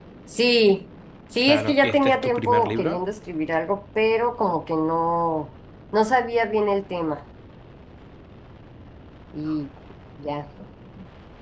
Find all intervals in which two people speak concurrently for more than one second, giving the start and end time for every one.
1.4-3.0

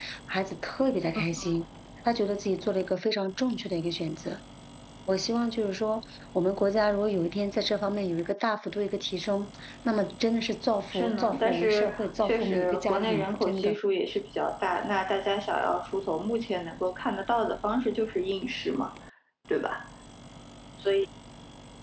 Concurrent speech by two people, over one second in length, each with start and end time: 10.9-13.8

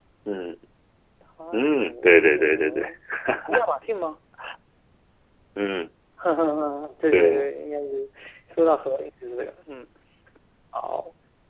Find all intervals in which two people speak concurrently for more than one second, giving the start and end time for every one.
1.5-2.9

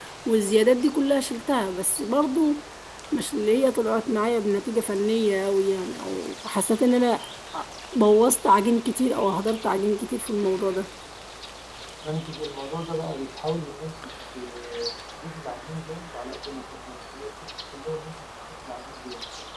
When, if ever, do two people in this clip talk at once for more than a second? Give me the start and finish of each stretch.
none

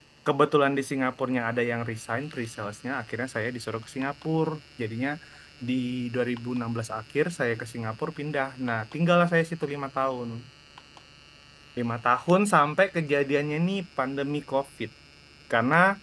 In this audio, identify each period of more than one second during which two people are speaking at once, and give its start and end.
none

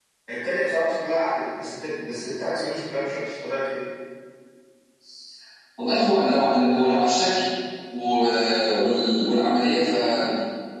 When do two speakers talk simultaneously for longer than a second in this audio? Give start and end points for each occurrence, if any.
none

